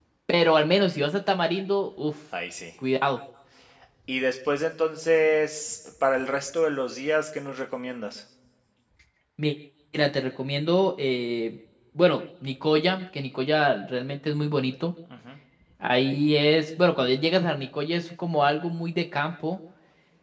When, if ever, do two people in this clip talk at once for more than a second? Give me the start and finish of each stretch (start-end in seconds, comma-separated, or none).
none